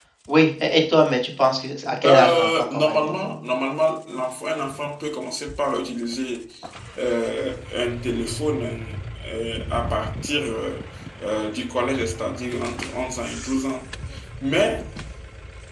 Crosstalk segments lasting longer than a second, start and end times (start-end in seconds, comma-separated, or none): 2.0-3.3